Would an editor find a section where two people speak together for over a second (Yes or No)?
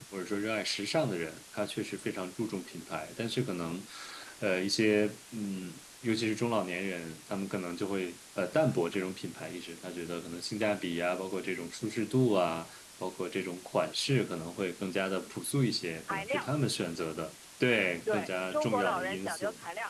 Yes